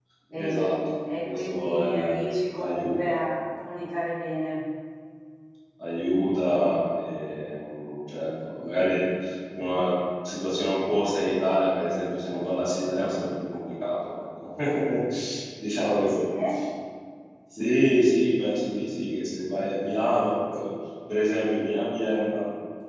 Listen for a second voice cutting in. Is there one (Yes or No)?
Yes